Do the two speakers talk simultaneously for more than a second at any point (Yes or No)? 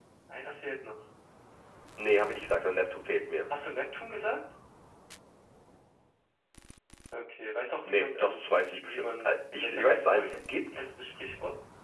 Yes